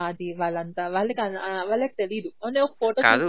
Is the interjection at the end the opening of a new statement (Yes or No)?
Yes